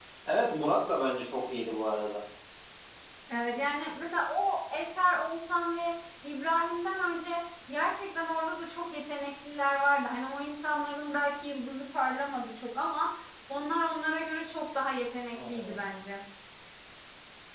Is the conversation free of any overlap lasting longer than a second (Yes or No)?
Yes